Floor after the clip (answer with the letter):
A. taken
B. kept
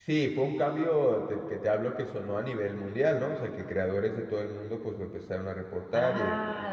A